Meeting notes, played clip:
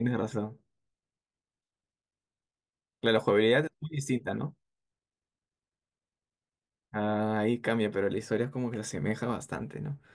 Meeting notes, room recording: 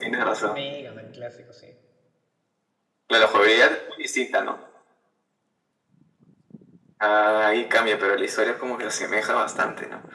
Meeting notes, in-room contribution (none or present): present